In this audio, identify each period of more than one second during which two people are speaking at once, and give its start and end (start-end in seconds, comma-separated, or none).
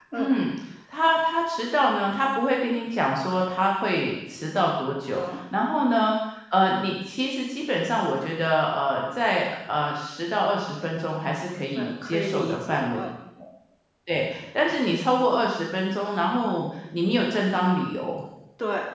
11.8-13.0